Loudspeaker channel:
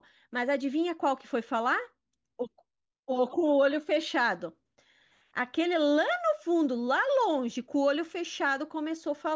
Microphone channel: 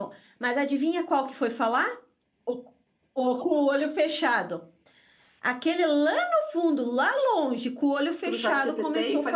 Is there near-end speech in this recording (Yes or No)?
Yes